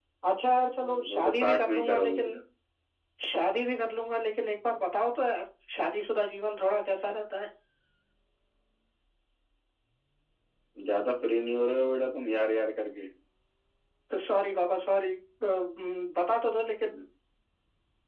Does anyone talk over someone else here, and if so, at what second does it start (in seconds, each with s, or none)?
0.8 s